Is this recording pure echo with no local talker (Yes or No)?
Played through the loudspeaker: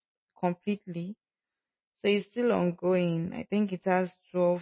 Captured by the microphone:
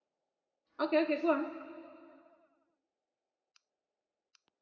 No